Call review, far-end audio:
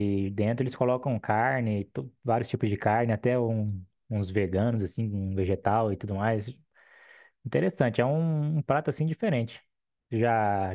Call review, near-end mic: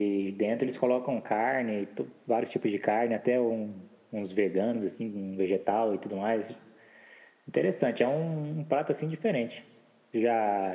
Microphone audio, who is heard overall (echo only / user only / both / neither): echo only